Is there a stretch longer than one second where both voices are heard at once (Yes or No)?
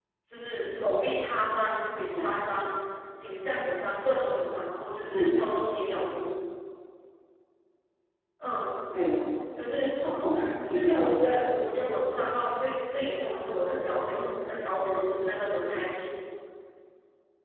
No